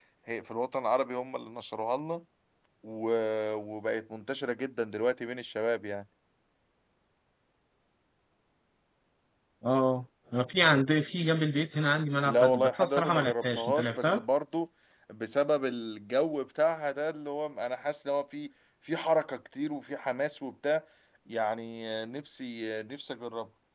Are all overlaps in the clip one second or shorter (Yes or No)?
No